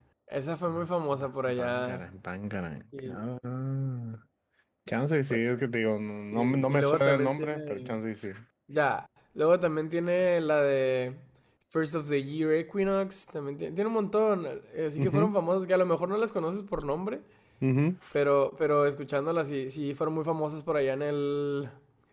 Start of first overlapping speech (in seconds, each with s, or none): 0.7 s